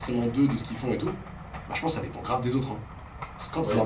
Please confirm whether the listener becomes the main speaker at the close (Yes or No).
No